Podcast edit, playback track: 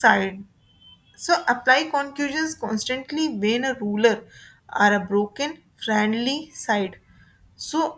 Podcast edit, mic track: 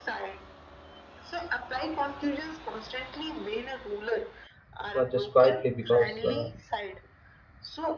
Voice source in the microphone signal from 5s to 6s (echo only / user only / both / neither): both